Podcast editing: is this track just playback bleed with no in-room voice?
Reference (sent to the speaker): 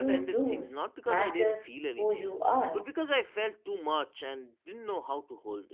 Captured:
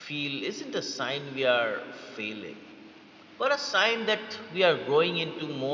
No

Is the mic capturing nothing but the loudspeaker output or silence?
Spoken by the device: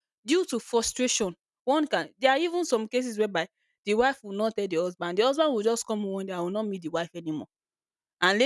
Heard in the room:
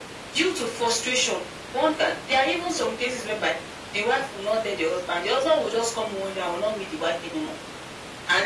Yes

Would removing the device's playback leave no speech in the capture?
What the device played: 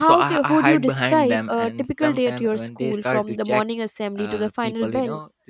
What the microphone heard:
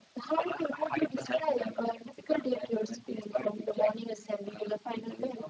Yes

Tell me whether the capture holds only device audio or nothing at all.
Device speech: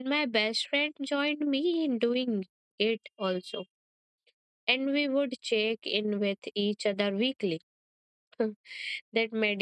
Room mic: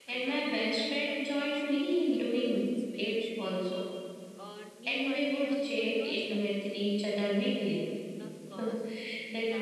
No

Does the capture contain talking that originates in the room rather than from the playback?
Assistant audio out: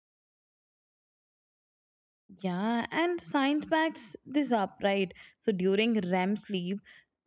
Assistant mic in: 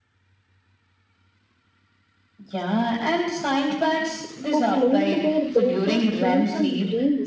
Yes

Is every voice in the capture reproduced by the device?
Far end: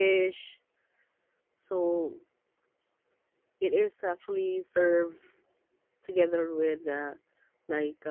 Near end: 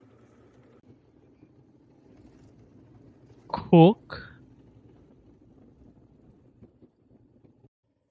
No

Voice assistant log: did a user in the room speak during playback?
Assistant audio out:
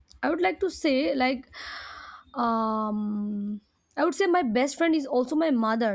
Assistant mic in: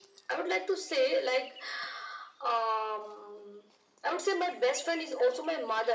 No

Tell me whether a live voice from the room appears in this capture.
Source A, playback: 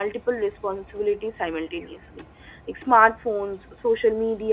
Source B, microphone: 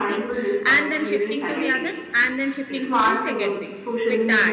Yes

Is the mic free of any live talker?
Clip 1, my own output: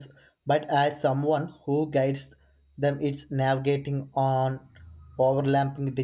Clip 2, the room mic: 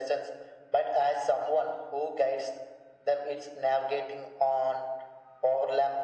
Yes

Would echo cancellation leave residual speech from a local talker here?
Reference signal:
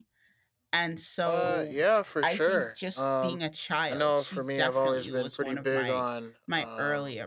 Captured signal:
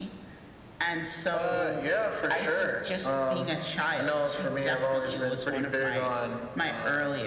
No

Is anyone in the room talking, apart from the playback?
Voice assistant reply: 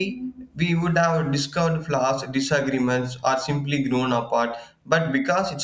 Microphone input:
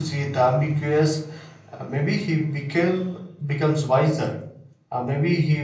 Yes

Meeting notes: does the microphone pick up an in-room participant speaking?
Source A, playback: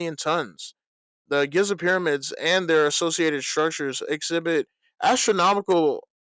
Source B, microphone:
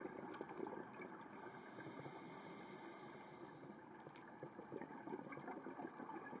No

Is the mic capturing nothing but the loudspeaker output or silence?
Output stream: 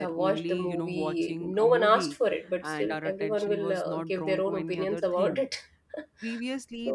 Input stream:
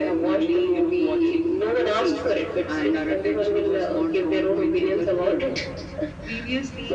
Yes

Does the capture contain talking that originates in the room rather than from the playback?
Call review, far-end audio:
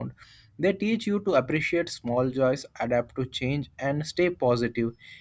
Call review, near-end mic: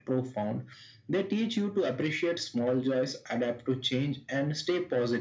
No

